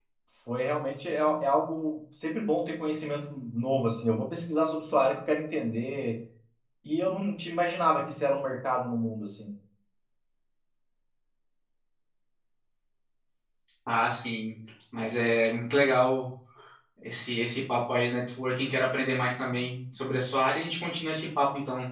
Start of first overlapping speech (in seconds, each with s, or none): none